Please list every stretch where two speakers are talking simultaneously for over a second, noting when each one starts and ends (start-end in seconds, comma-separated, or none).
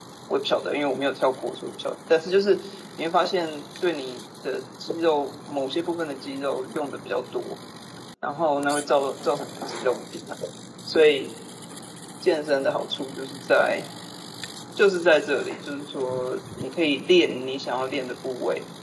none